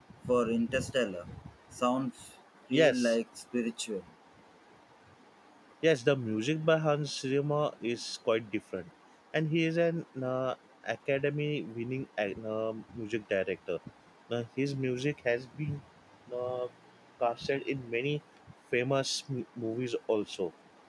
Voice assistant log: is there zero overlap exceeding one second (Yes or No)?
Yes